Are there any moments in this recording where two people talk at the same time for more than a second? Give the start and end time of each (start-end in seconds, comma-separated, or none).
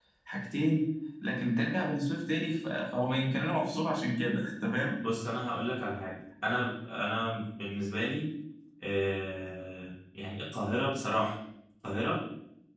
none